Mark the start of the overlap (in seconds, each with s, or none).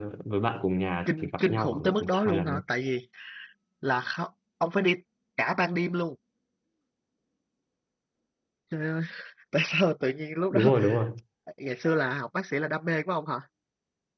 1.1 s